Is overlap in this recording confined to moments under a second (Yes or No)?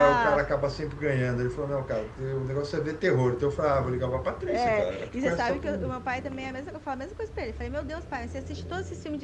No